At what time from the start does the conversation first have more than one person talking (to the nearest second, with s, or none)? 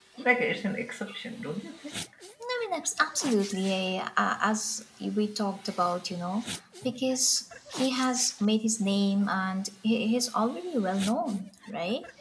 none